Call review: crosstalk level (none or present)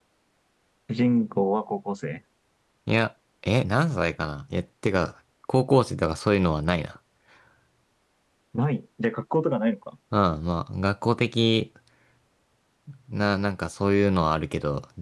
none